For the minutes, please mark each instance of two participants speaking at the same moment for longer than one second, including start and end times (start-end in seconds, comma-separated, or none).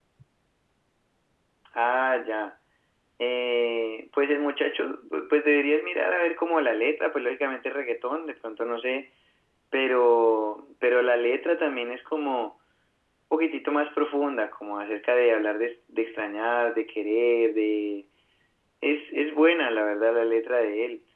none